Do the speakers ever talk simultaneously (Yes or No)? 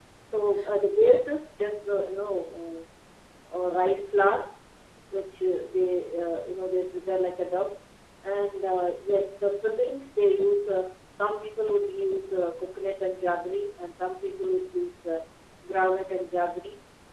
No